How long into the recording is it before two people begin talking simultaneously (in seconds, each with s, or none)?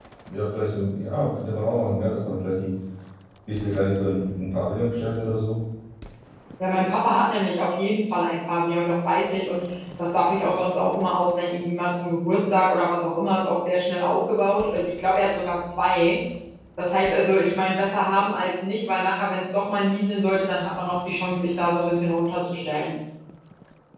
none